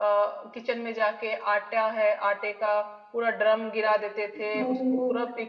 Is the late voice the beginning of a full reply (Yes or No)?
No